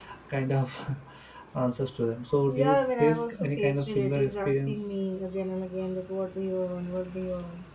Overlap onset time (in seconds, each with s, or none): 2.5 s